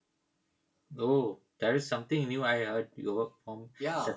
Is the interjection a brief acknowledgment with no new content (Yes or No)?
No